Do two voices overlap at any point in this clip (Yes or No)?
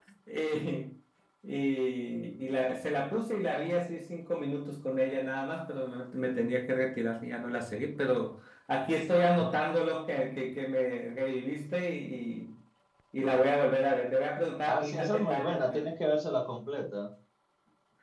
Yes